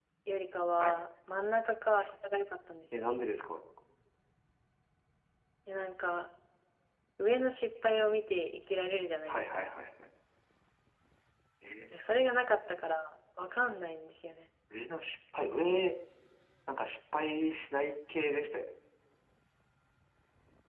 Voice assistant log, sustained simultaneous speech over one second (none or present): none